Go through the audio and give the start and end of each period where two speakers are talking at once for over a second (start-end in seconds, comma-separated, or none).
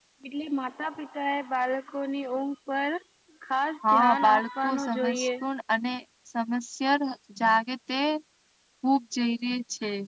3.8-5.3